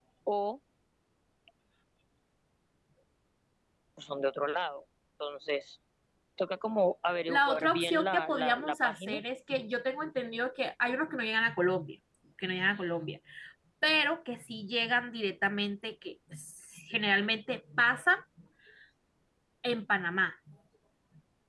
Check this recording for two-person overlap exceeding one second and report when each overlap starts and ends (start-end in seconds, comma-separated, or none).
7.3-9.2